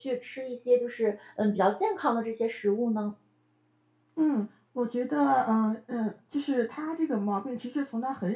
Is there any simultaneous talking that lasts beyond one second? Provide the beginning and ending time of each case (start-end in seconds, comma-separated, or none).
none